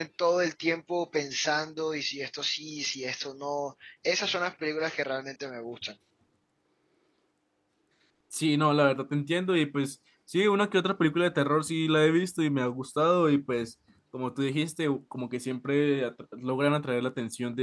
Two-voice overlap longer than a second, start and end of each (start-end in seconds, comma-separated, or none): none